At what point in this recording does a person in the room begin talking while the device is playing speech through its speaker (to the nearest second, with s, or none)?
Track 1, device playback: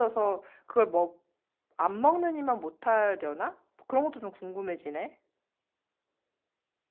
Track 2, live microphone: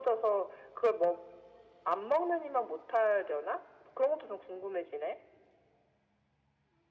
none